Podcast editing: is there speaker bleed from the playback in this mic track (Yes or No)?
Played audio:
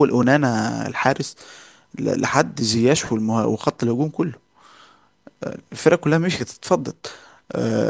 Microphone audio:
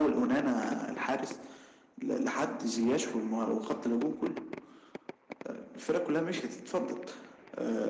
Yes